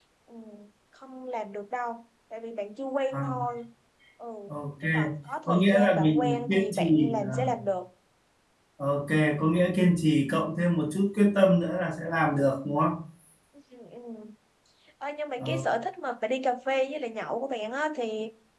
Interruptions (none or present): present